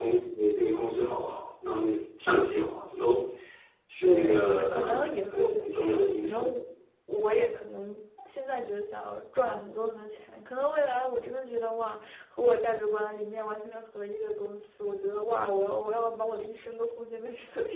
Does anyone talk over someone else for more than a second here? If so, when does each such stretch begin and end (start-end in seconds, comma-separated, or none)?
4.0-5.6